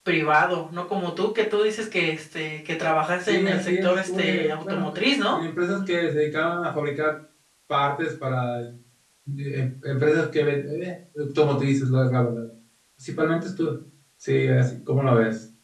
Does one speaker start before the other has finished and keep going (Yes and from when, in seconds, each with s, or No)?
Yes, from 3.2 s